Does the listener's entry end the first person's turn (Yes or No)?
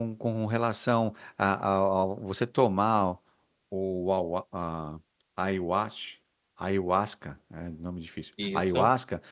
No